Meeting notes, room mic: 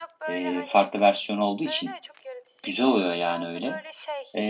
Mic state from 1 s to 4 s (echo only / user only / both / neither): both